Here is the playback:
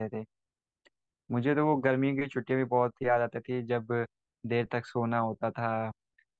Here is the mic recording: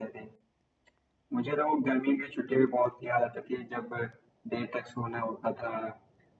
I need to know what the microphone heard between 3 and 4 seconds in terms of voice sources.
echo only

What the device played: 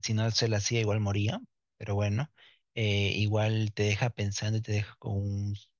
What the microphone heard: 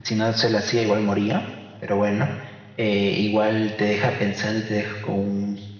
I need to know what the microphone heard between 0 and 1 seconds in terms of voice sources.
echo only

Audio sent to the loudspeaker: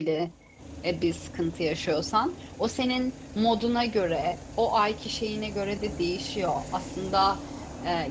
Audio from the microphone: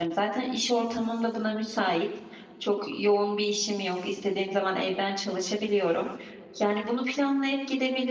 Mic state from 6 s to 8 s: user only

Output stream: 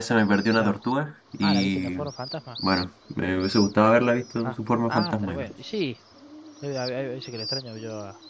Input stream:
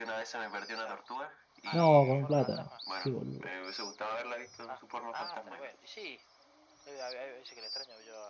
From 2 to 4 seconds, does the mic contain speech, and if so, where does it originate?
both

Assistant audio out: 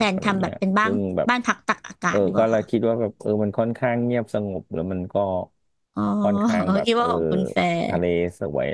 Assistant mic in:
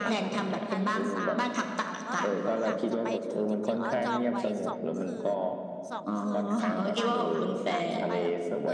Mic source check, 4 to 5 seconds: both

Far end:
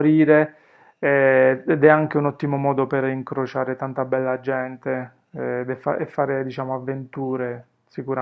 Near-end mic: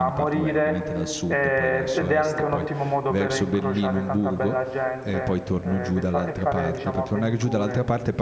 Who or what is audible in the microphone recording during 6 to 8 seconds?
both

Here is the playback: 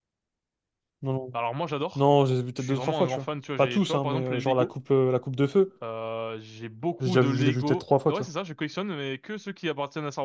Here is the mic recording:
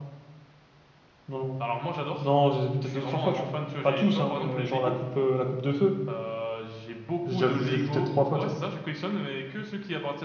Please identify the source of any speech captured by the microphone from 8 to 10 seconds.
echo only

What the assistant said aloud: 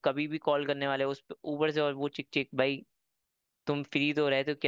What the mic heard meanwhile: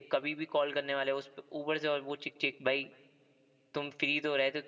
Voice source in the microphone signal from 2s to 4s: echo only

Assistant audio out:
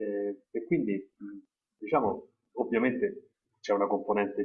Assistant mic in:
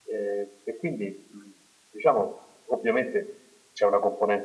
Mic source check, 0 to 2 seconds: echo only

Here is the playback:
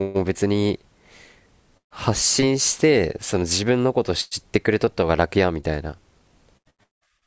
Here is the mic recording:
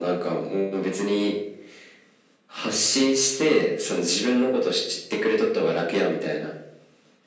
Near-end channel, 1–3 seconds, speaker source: echo only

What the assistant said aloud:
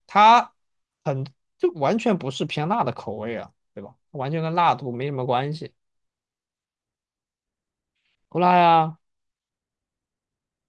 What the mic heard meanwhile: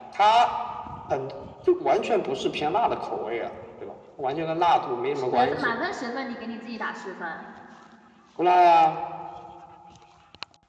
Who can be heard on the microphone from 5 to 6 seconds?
both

